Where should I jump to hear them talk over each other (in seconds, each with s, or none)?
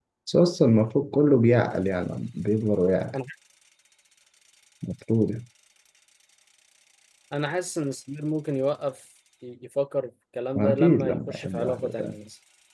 10.6 s